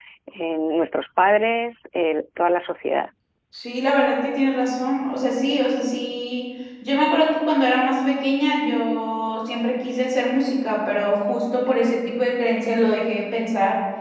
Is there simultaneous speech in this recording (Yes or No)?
No